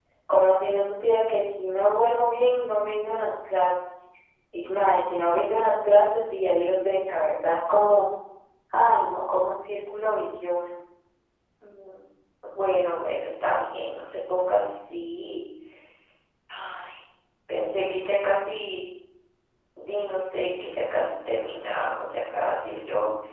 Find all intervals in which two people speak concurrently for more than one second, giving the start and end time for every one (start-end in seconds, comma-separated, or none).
none